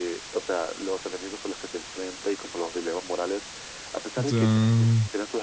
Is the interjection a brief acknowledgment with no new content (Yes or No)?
Yes